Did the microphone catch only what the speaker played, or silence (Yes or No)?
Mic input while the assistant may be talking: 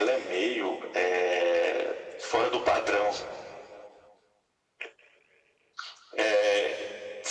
Yes